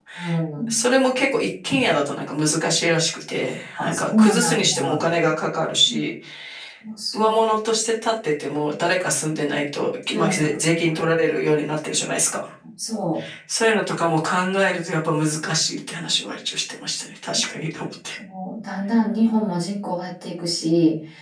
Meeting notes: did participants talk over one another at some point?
Yes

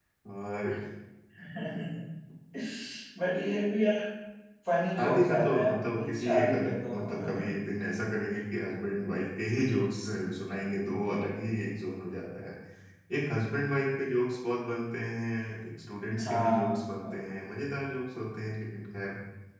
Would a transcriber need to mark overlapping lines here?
Yes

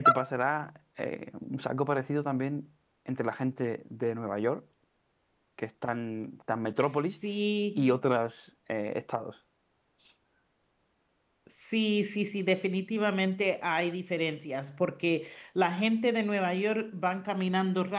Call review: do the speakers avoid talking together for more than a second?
Yes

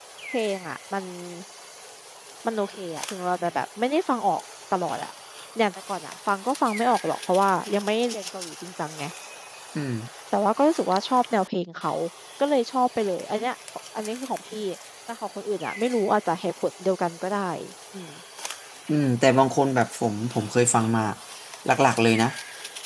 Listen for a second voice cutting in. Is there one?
No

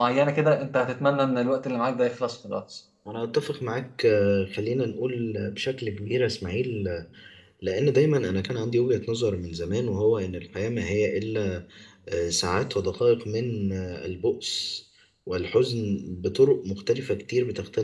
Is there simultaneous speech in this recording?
No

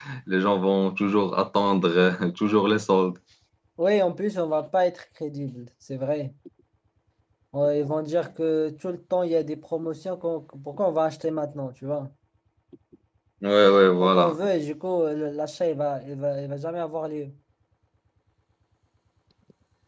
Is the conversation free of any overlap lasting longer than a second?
Yes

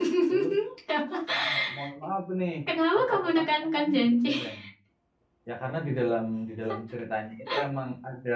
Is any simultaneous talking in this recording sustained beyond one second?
Yes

